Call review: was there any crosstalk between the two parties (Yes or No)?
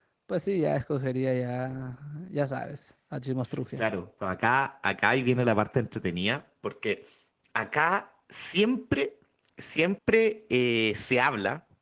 No